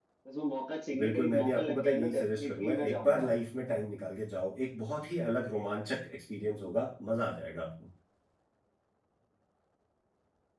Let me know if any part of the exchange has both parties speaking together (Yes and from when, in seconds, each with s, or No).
Yes, from 1.0 s